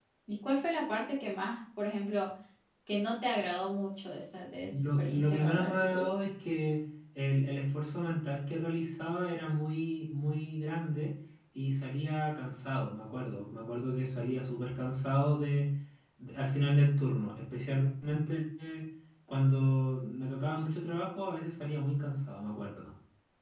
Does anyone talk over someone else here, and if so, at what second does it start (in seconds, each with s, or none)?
4.7 s